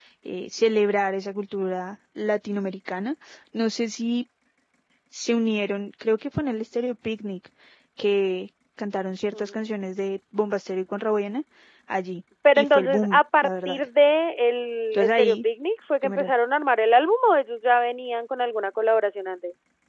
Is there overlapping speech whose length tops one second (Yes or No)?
Yes